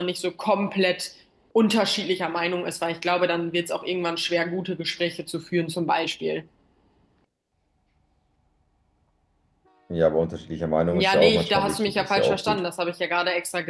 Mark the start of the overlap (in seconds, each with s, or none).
10.9 s